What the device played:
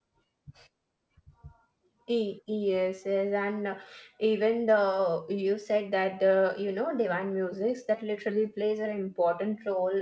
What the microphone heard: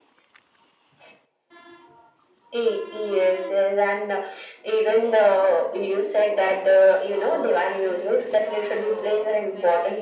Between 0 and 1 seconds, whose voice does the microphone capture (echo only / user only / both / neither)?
neither